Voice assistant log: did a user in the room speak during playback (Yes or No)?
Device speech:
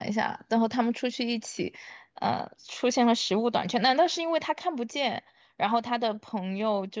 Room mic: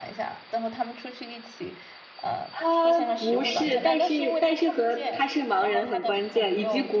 Yes